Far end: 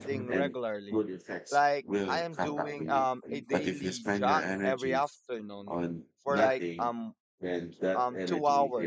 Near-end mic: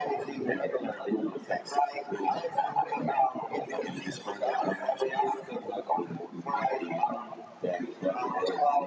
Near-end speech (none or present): none